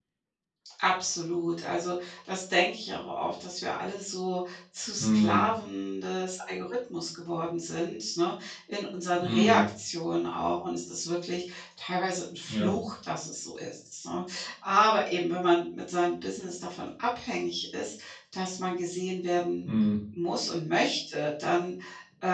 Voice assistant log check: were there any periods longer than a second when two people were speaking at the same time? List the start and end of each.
none

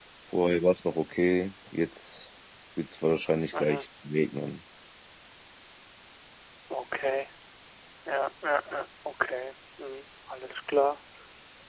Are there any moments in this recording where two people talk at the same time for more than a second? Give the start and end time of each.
none

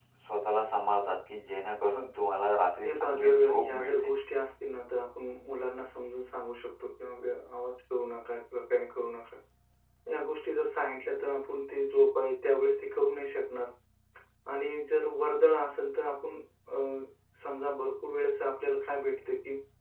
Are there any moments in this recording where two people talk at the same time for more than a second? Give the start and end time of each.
2.8-4.1

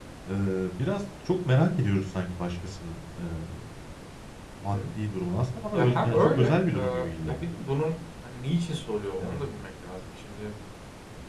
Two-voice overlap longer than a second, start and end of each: 5.7-7.5

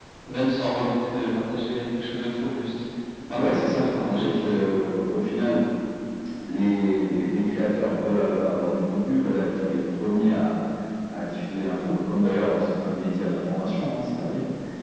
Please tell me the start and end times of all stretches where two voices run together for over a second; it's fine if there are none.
3.3-4.5

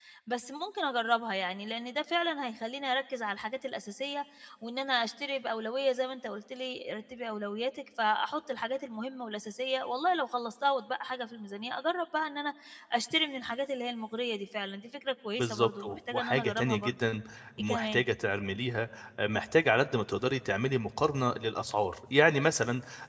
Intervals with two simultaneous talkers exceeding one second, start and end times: 15.4-16.9

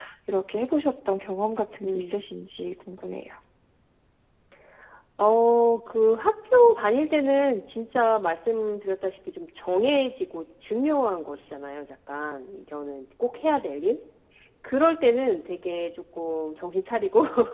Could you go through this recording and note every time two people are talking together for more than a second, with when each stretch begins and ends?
none

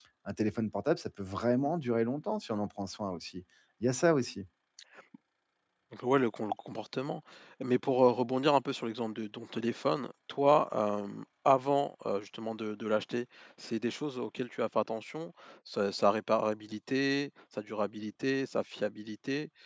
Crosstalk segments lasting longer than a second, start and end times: none

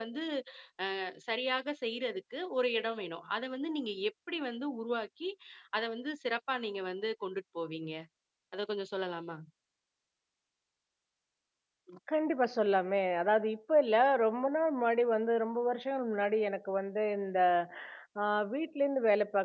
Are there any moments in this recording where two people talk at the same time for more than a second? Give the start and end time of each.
none

